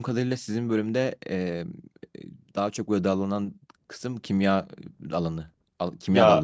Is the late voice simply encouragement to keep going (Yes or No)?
No